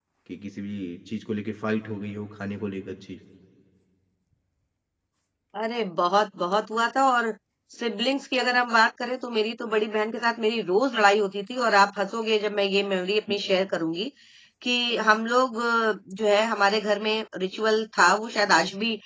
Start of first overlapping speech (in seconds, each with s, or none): none